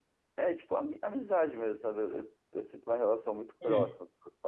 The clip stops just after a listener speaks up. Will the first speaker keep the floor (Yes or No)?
Yes